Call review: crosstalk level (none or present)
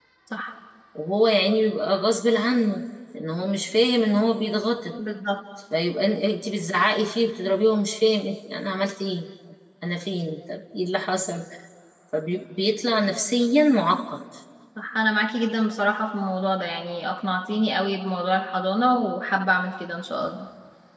none